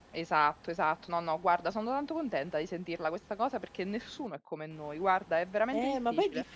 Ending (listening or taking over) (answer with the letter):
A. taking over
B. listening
A